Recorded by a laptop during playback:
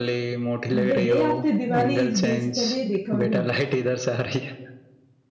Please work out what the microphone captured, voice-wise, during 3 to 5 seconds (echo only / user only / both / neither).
both